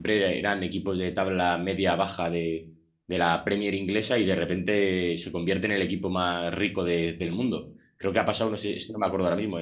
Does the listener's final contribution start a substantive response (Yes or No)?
No